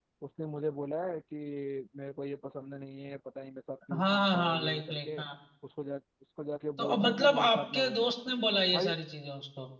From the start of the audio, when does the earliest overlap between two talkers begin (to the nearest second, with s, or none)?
4 s